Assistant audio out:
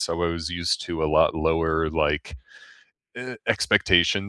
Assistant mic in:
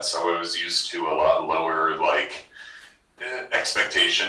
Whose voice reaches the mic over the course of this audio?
echo only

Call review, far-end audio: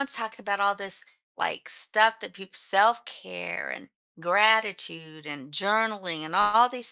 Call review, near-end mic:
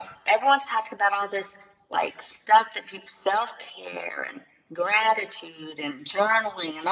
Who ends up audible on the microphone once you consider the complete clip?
echo only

